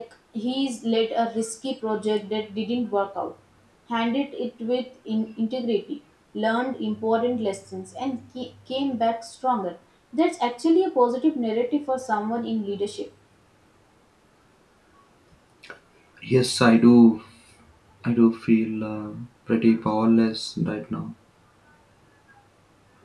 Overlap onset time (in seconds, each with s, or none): none